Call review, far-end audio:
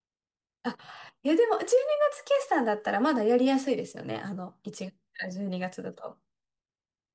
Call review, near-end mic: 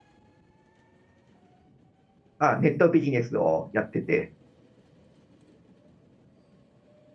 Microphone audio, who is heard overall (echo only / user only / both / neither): user only